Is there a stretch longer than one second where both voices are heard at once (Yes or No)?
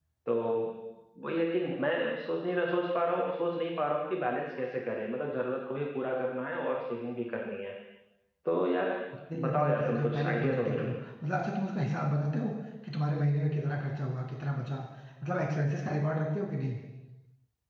Yes